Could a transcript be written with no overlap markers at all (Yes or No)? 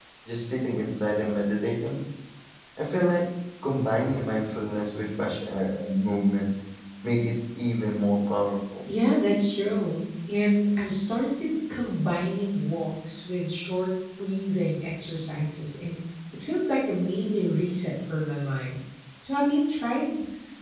Yes